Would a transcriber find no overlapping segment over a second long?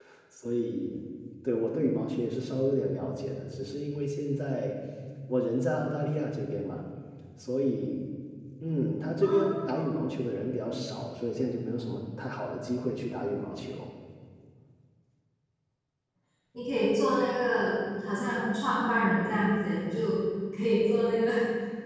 Yes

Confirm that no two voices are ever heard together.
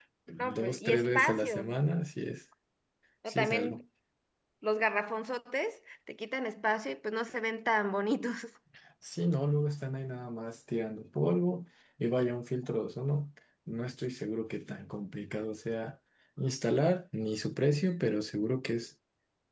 No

